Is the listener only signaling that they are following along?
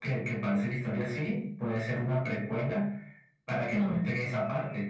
Yes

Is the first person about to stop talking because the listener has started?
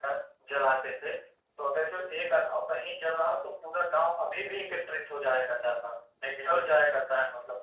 No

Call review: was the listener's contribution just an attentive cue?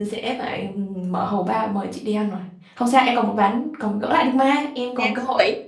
No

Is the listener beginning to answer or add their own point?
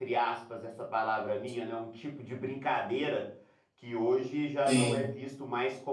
No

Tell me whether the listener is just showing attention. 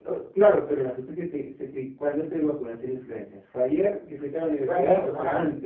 No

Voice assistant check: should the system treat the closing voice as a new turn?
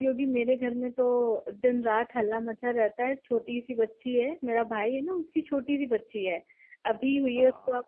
No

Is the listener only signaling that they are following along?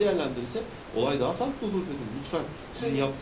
Yes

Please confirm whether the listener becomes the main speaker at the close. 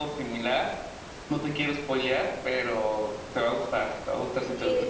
Yes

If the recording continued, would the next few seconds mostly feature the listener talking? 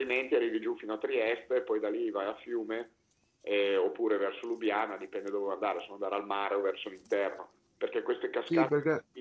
Yes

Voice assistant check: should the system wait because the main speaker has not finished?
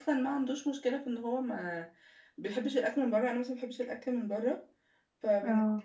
Yes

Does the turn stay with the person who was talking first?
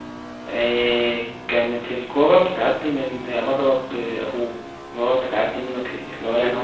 No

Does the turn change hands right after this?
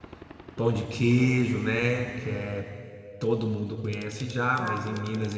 No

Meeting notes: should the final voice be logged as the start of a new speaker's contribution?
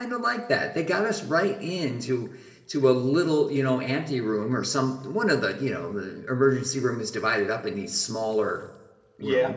No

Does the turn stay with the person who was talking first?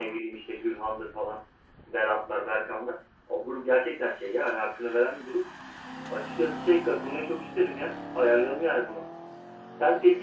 Yes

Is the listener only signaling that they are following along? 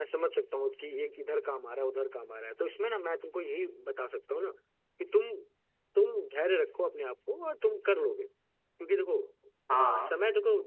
Yes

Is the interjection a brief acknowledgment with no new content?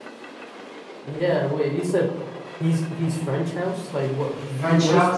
No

